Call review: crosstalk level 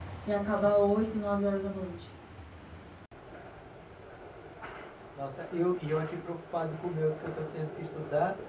none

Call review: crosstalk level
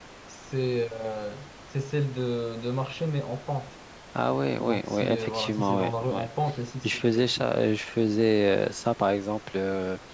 present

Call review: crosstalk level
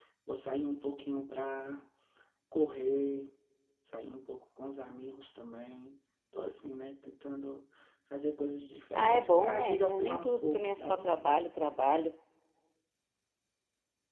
present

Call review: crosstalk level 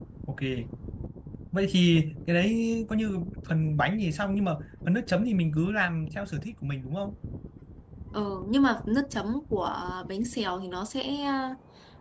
none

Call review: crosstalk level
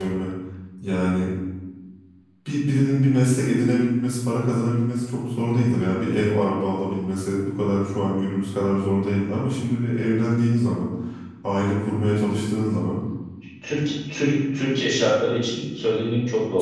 none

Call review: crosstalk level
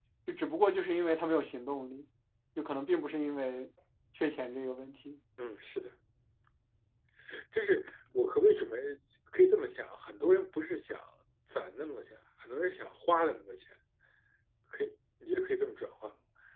none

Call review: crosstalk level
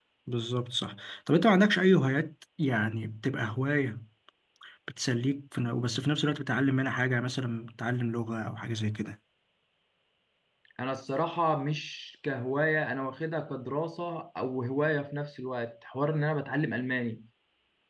none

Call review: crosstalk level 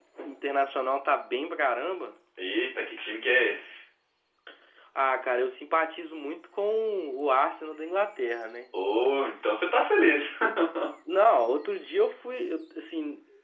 none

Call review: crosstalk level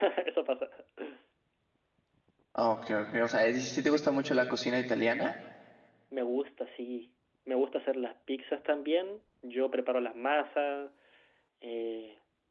none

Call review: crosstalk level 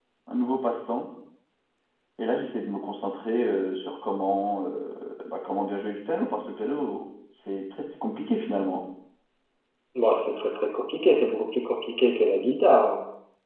none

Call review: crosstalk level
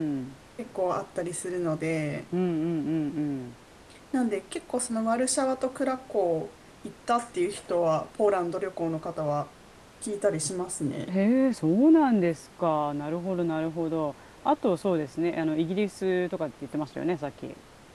none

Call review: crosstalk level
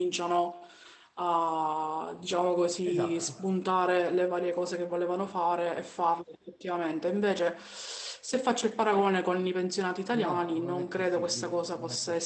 present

